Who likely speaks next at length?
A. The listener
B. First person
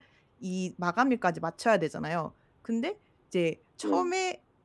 B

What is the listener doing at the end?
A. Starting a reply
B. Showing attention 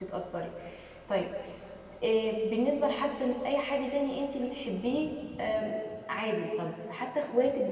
B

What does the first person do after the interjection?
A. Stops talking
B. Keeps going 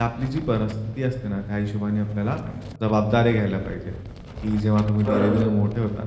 B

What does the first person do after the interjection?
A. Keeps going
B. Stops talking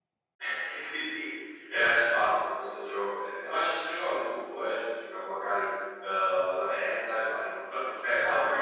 B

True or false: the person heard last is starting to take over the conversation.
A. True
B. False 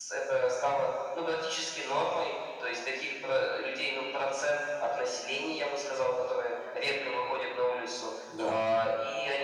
B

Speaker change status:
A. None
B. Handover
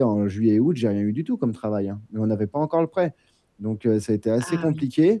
A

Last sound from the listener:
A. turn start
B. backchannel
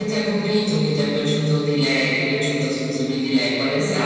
A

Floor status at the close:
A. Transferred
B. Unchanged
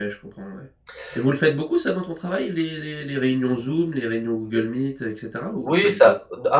A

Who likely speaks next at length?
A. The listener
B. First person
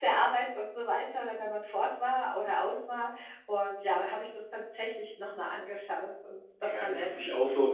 A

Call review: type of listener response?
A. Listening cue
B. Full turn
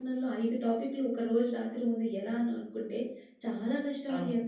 A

